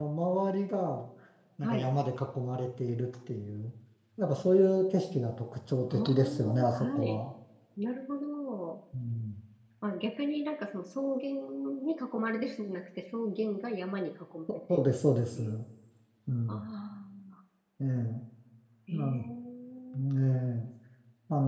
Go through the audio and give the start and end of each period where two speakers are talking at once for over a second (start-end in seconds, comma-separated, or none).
5.9-7.2